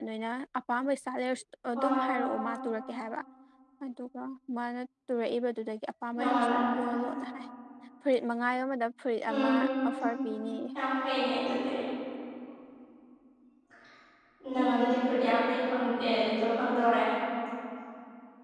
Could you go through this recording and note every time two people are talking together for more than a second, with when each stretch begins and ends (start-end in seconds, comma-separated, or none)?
none